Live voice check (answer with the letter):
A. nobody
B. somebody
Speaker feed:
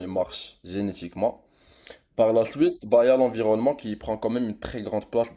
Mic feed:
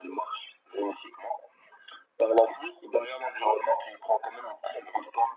A